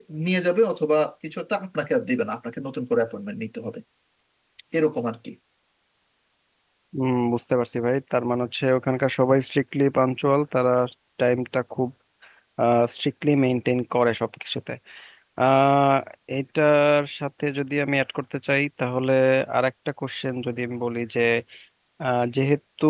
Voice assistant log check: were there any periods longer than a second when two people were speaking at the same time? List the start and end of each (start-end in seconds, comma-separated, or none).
none